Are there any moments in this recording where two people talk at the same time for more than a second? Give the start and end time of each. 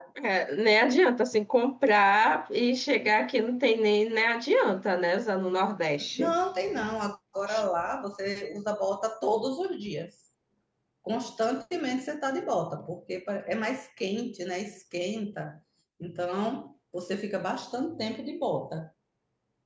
none

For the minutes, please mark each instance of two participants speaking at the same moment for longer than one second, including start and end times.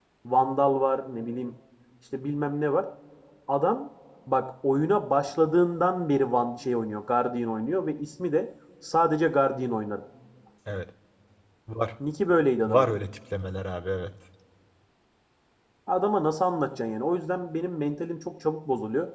none

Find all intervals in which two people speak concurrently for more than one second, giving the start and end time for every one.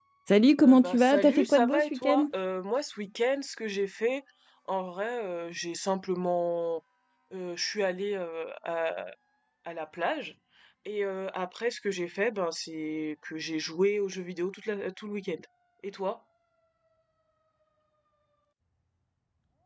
0.6-2.3

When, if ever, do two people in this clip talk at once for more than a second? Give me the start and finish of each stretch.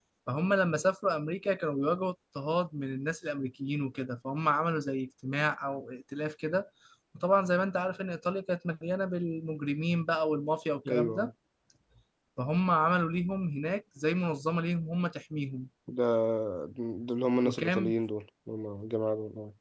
none

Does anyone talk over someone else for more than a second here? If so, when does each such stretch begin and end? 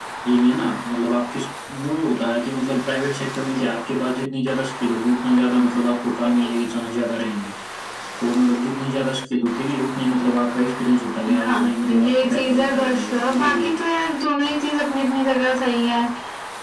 11.4-13.7

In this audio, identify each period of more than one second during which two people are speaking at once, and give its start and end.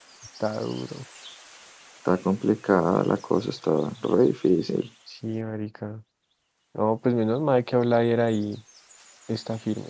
none

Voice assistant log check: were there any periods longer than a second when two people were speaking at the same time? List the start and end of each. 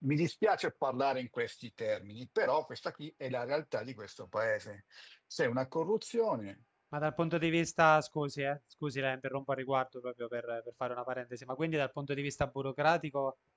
none

